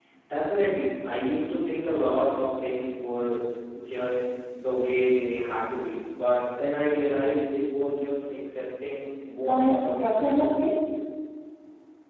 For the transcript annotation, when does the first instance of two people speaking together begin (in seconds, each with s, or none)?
9.4 s